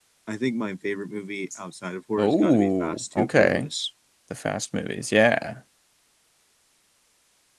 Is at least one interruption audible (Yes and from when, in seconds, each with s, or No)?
Yes, from 2.2 s